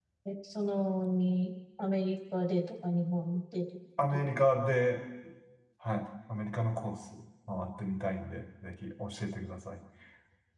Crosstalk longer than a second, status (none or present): none